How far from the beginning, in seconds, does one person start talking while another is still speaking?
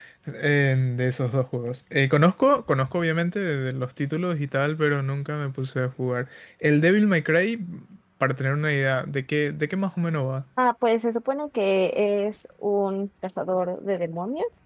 none

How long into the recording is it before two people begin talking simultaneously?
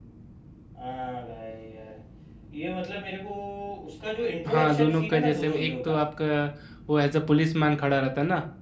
4 s

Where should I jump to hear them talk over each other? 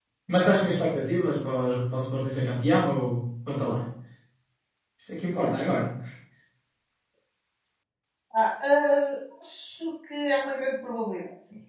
none

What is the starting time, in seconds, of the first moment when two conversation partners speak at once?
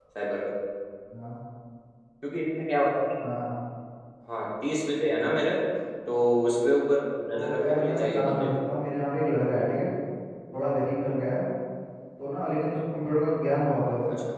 7 s

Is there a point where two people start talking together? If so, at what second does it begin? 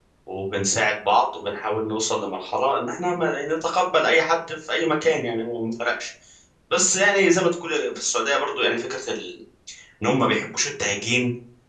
none

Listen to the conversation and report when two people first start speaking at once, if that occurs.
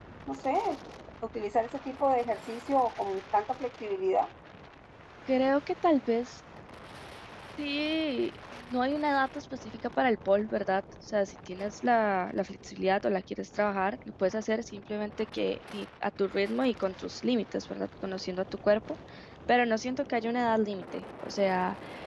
none

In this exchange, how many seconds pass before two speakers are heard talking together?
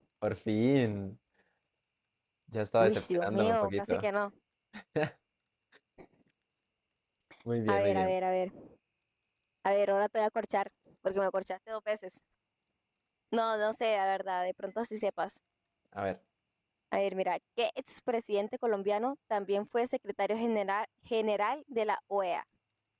3 s

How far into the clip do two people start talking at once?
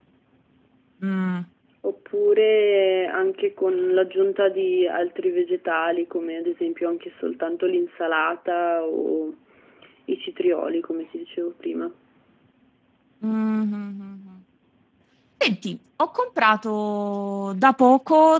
none

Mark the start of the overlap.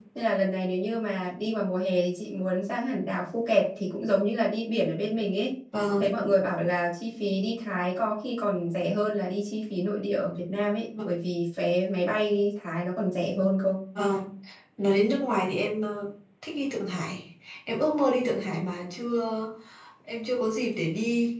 none

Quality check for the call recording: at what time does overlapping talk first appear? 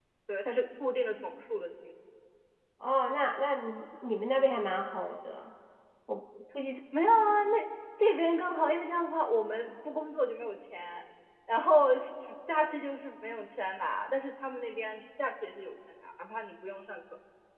none

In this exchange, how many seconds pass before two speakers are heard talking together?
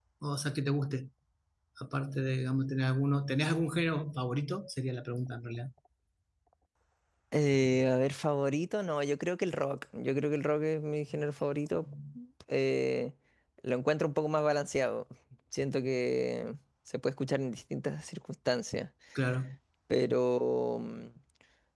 none

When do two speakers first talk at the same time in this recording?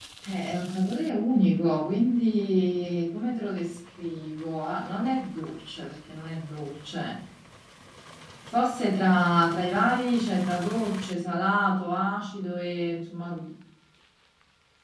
none

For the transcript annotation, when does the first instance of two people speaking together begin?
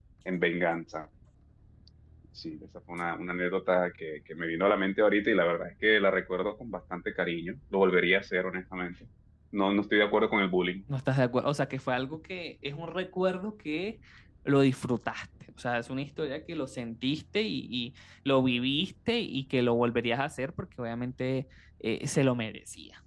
none

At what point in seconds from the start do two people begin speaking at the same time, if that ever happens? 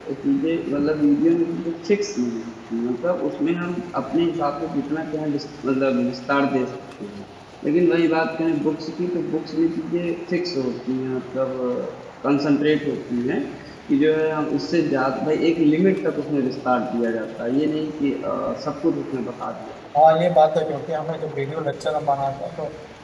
none

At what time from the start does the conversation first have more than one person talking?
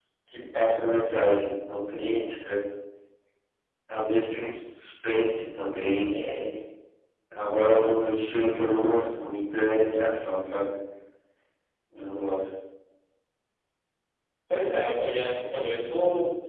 none

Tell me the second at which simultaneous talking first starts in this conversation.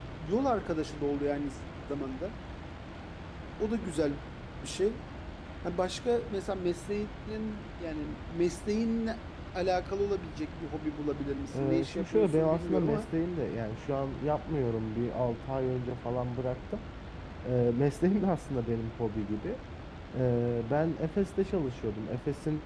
12 s

